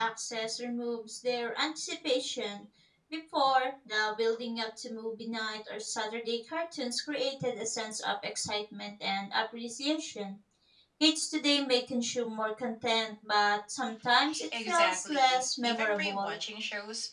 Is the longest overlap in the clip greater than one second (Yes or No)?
Yes